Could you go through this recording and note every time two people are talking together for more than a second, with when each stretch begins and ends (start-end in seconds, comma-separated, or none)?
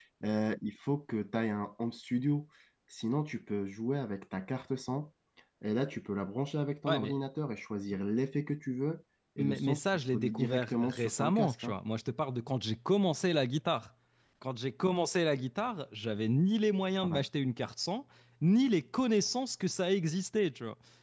9.4-11.7